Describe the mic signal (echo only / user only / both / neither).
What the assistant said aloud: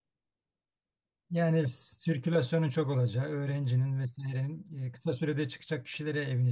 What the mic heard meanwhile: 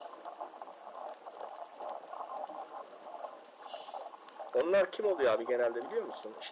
user only